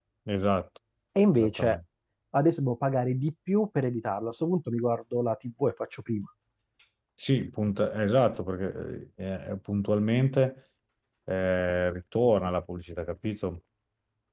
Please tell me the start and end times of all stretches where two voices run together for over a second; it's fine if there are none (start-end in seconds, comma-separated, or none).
none